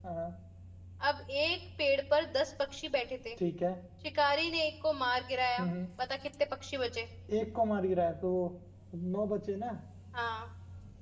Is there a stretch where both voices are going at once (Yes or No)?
No